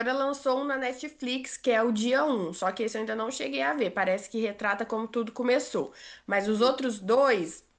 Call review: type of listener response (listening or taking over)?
listening